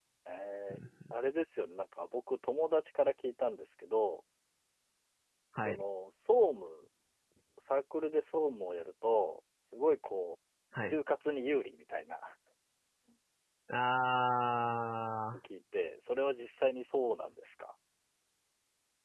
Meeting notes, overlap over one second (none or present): none